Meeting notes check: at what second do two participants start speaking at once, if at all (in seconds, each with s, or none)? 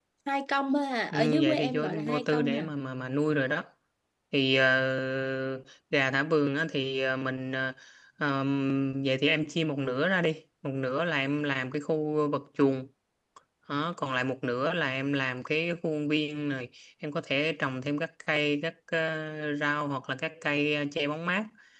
1.1 s